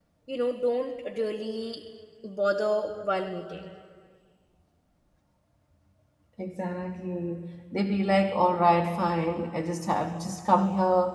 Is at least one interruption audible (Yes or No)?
No